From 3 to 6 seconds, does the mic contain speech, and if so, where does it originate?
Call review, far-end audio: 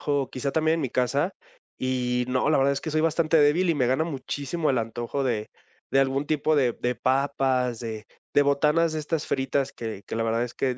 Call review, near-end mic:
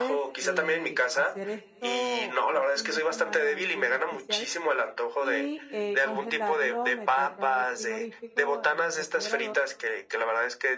both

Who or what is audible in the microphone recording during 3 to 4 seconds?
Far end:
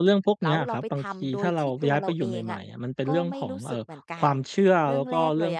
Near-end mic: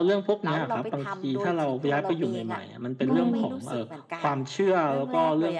both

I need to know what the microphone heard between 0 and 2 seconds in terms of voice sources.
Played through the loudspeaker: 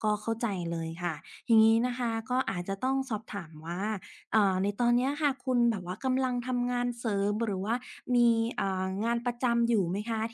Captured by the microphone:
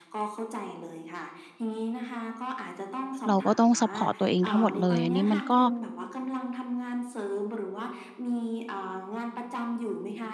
echo only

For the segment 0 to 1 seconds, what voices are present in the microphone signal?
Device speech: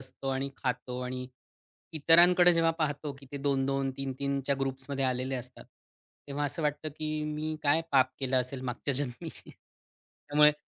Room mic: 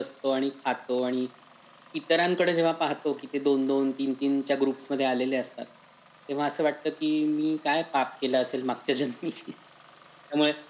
echo only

